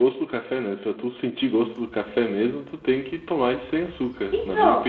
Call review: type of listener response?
taking over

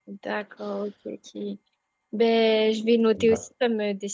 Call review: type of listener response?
listening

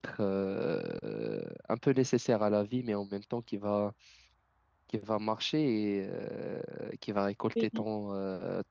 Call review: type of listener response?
listening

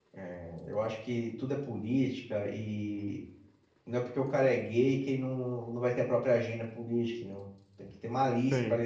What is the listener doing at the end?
listening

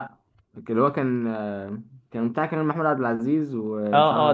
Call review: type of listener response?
taking over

